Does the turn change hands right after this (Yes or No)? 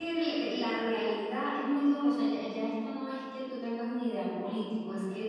No